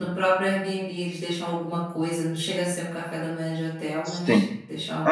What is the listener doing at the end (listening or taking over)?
taking over